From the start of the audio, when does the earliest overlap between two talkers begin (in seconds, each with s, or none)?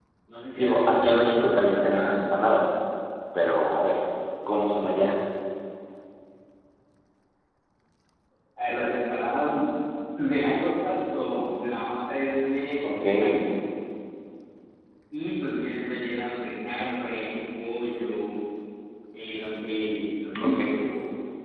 0.6 s